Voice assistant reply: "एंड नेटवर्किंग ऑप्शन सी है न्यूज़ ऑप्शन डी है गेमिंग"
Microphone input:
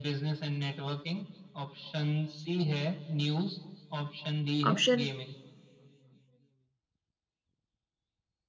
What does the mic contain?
both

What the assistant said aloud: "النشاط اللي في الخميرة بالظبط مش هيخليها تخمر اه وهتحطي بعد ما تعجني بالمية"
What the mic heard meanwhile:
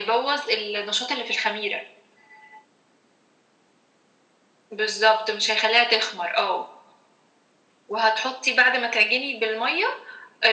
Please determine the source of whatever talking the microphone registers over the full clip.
echo only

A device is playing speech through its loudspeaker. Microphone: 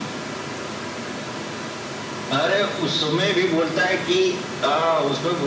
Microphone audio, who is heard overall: echo only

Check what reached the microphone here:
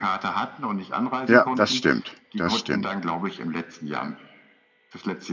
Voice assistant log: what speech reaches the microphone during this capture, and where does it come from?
both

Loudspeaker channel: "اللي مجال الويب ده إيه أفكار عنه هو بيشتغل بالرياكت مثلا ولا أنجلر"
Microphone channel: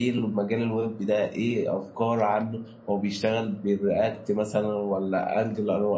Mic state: echo only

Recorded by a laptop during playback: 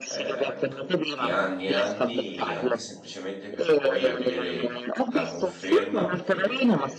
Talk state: both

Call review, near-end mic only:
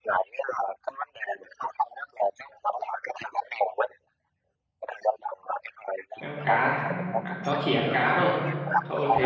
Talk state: both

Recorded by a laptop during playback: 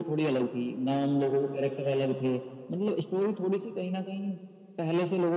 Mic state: echo only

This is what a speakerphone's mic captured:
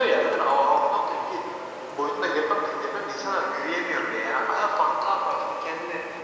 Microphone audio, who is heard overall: echo only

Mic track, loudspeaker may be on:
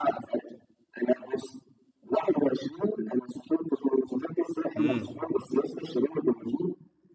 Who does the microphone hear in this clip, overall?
both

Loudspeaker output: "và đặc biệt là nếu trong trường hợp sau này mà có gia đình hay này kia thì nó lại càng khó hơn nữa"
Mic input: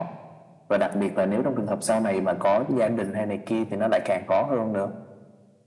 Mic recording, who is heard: echo only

